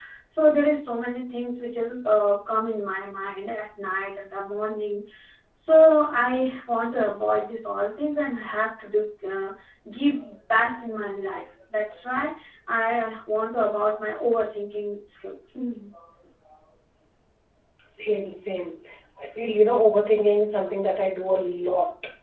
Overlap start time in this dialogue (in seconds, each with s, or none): none